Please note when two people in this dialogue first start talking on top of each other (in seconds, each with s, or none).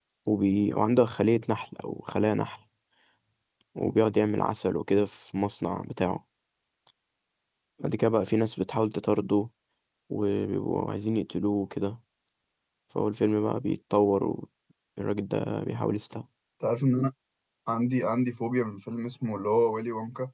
none